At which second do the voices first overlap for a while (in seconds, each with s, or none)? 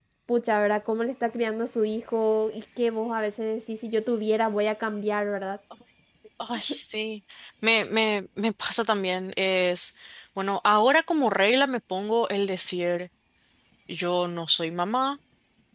none